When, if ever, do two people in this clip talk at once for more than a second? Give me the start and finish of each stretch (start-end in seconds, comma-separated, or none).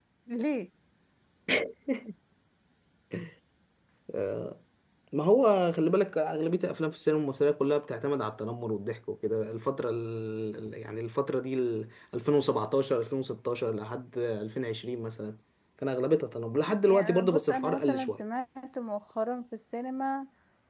16.9-18.2